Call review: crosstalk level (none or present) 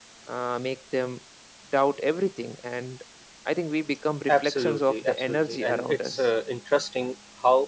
present